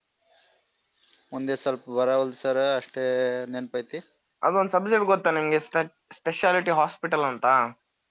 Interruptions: none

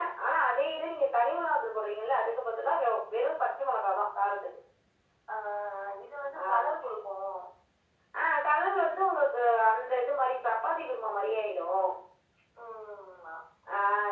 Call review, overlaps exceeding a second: none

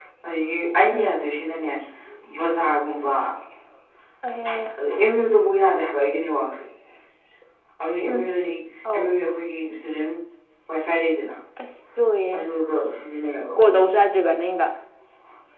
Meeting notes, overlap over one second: none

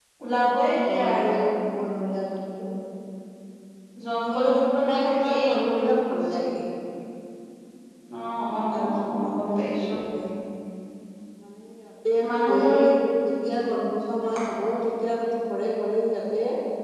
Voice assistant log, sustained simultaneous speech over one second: present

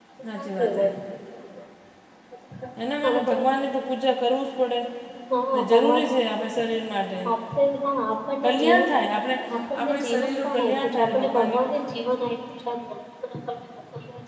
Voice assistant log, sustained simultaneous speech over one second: present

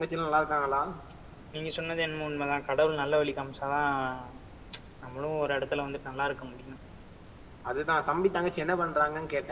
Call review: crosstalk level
none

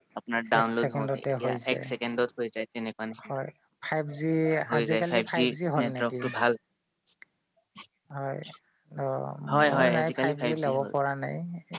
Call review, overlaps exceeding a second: present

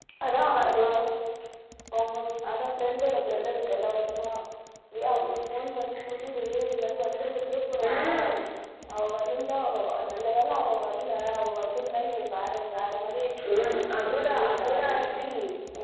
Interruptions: present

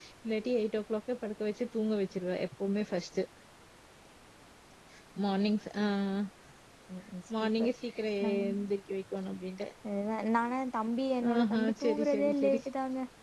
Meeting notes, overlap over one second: present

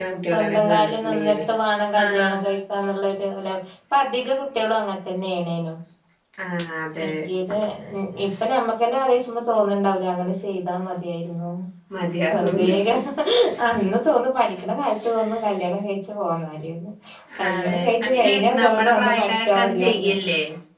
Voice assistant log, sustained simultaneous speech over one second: present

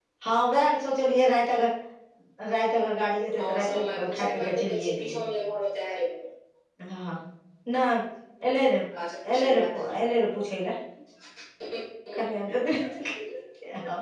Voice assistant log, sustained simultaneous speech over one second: present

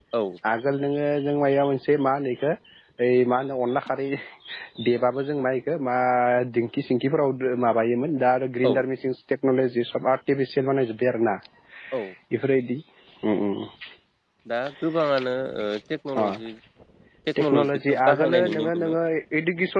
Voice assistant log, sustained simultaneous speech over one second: present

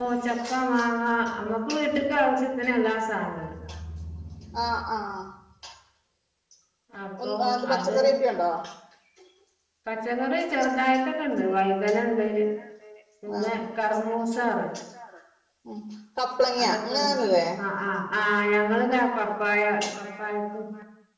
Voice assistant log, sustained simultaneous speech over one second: present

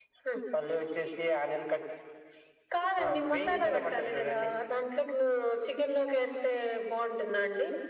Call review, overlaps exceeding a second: present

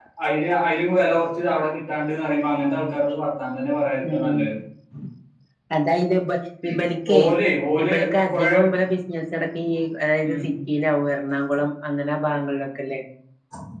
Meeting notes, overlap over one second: none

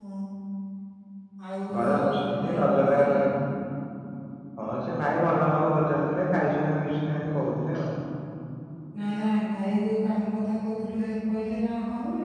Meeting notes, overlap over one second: present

